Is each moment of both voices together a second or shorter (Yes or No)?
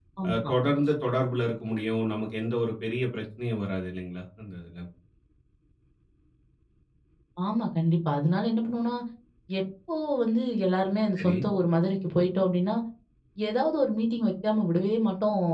Yes